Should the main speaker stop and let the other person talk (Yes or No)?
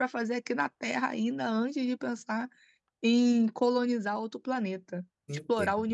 Yes